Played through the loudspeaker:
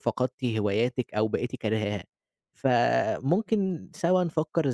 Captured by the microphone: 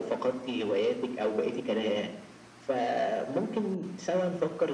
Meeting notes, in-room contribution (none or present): none